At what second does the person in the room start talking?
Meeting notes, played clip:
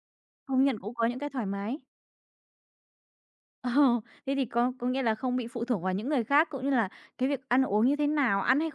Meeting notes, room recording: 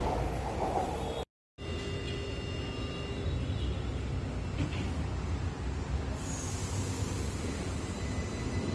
none

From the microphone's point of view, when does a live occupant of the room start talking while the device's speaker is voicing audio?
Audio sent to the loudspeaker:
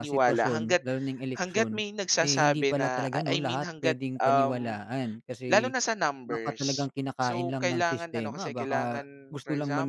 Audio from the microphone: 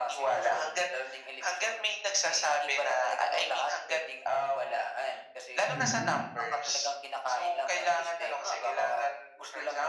5.7 s

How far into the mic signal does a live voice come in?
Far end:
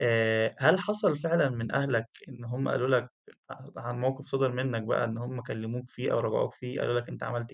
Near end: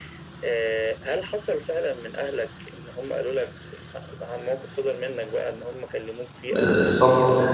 6.6 s

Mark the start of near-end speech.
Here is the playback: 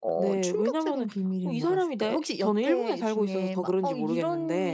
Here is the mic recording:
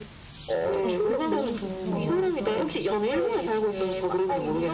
0.8 s

